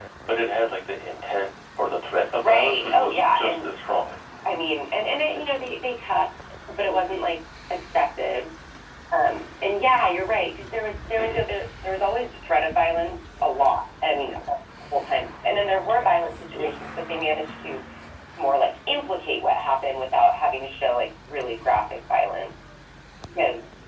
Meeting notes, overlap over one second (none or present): present